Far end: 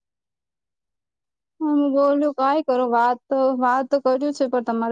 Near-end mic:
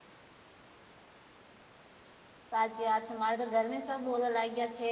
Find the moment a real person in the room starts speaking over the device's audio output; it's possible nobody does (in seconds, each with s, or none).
2.5 s